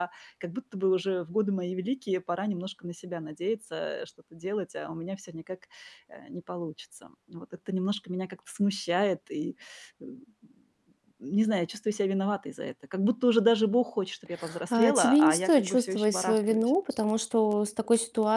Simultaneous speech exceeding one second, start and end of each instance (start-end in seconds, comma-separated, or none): 14.7-16.7